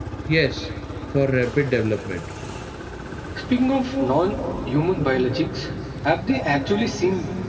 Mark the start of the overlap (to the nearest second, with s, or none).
none